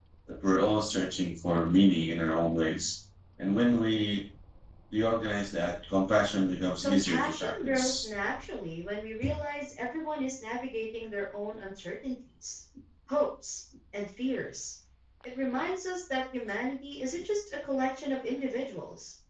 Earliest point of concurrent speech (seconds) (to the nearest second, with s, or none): 7 s